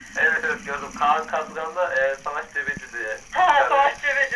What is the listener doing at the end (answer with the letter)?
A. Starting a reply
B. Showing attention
A